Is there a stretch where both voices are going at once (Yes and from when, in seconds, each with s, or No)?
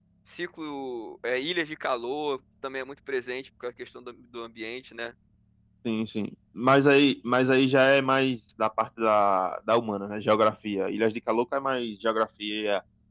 No